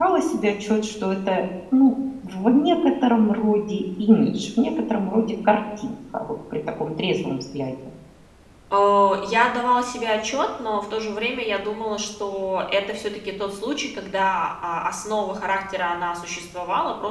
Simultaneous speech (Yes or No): No